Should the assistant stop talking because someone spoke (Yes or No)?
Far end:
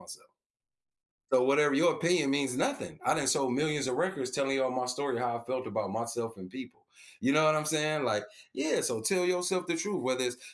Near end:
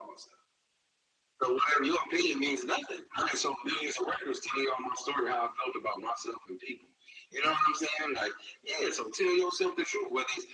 No